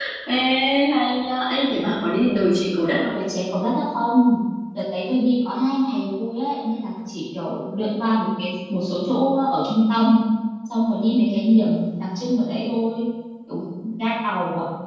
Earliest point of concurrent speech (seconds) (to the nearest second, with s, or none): none